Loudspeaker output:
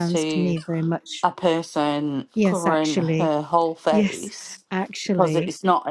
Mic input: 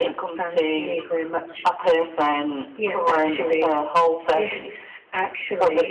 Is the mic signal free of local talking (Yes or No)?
Yes